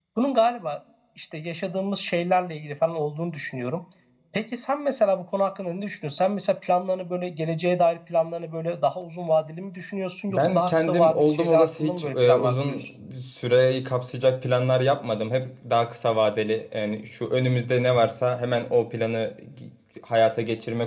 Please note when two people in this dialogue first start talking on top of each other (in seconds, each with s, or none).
10.3 s